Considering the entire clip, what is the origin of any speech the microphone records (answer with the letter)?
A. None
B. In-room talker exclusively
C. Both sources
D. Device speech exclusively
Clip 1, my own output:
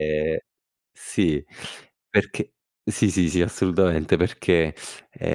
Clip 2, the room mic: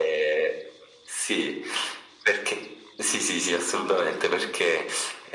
C